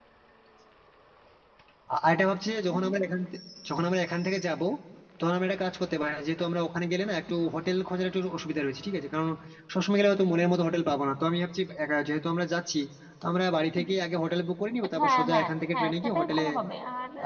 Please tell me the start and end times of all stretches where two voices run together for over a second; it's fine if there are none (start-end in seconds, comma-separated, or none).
15.0-16.4